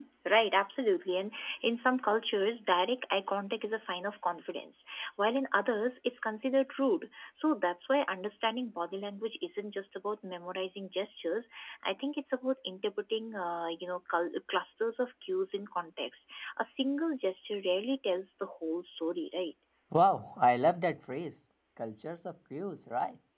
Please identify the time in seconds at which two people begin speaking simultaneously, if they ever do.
none

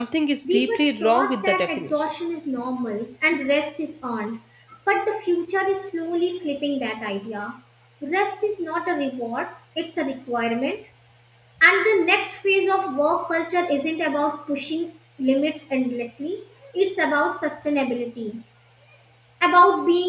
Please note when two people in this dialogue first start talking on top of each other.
0.5 s

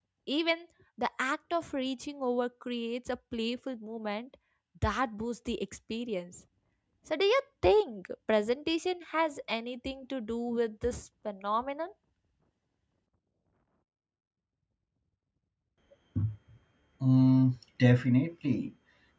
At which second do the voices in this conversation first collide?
none

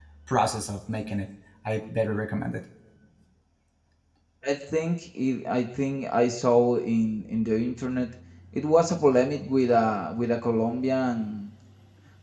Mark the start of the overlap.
none

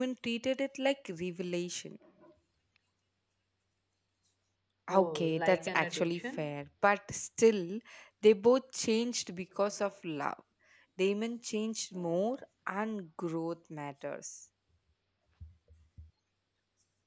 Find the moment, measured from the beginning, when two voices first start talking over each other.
5.0 s

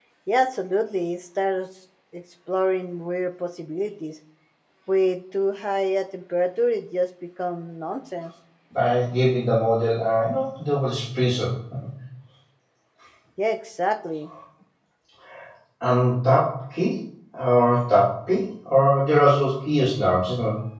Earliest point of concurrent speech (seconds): none

